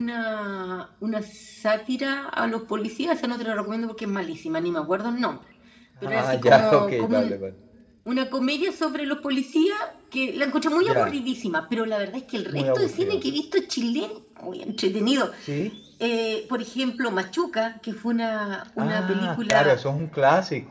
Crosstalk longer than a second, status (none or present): present